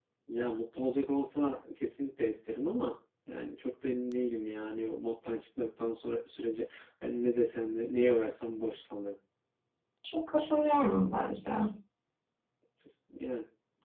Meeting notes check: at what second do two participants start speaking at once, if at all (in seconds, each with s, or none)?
none